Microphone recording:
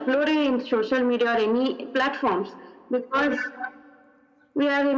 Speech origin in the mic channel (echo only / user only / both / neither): echo only